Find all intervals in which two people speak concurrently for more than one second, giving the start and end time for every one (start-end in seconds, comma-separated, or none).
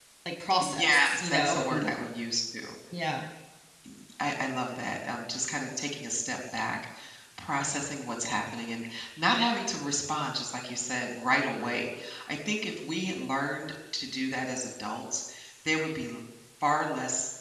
0.6-1.9